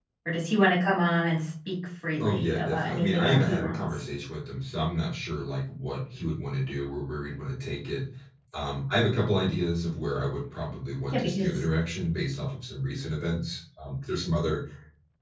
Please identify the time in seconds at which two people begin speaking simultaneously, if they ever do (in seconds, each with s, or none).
2.2 s